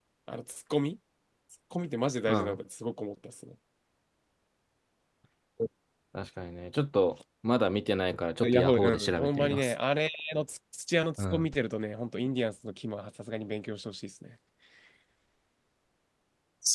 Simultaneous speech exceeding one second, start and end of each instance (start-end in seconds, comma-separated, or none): 8.4-9.7